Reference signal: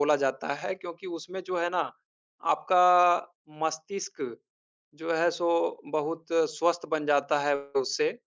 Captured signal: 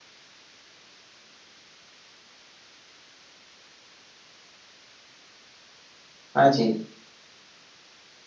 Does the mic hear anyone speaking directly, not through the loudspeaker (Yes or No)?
Yes